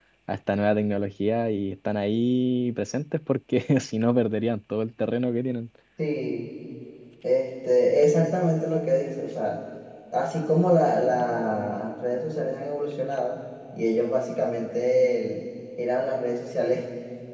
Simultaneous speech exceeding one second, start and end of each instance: none

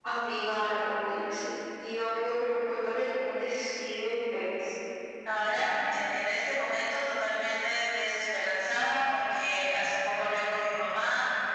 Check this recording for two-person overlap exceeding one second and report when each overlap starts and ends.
none

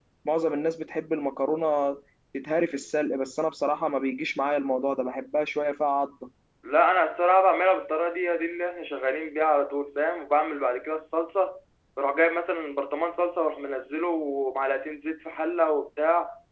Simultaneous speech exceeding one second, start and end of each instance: none

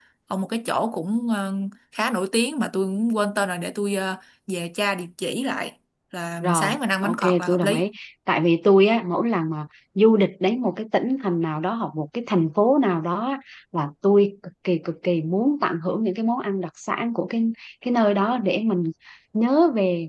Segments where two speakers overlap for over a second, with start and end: 6.4-7.9

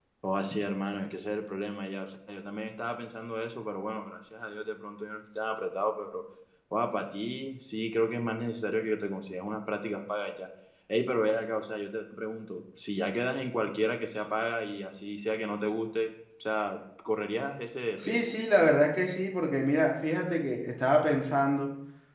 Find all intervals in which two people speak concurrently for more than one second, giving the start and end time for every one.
none

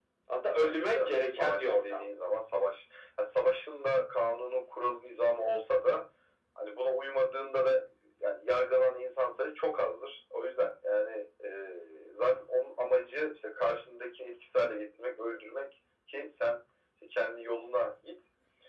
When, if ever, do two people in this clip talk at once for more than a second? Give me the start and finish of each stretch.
0.6-2.0

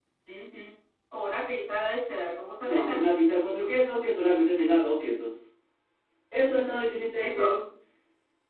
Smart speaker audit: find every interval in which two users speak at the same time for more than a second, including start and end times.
none

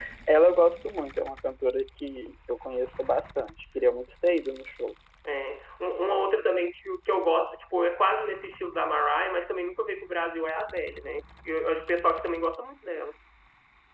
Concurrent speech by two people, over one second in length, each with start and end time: none

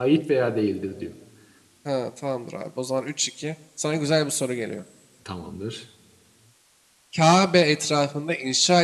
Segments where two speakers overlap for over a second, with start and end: none

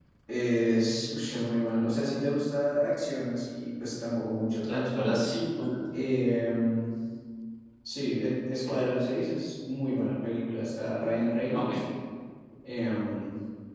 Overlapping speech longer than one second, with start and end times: none

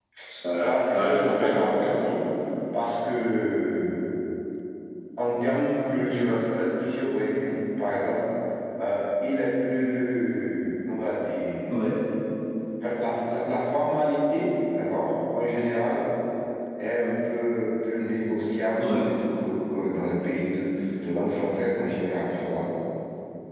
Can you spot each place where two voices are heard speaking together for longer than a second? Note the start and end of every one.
0.5-2.1

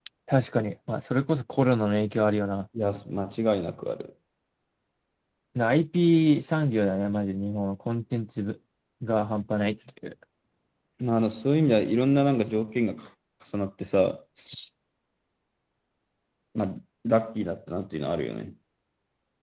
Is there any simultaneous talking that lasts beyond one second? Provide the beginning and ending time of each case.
none

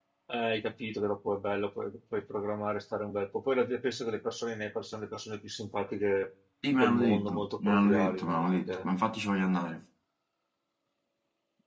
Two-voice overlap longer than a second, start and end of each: 6.8-8.9

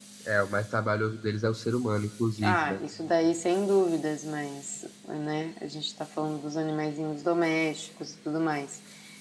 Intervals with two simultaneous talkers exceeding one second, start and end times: none

